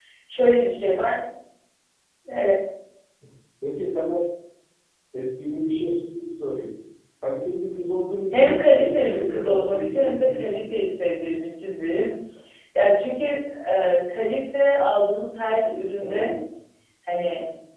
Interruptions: present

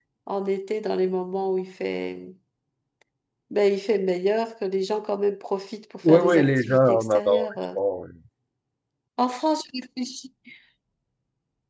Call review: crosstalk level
present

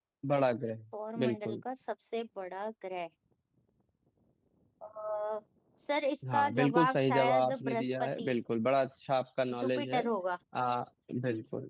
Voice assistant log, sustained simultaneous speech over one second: present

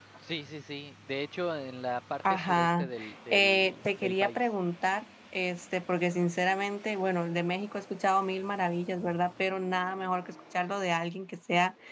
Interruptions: present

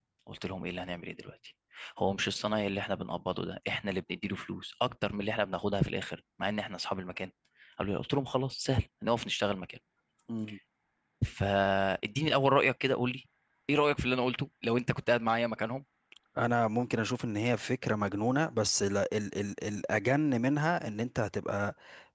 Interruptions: none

